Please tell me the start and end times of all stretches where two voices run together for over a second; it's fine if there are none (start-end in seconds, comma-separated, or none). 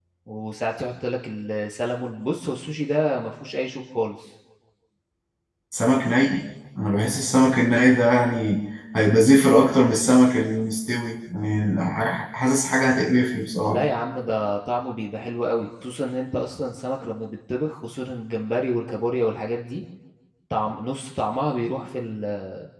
none